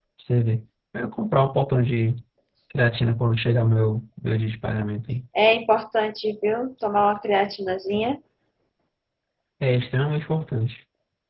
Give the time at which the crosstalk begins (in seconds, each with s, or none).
none